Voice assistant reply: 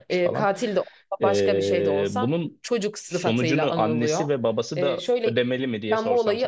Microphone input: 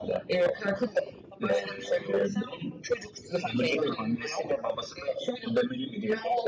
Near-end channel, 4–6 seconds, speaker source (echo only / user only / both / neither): echo only